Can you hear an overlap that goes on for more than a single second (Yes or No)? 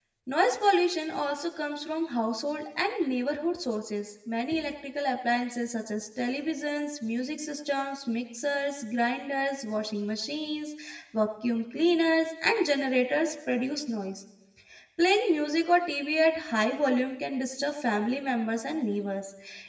No